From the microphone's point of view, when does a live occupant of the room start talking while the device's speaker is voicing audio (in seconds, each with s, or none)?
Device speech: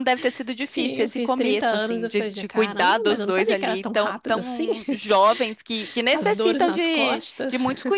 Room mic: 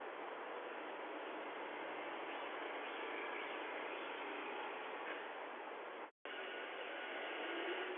none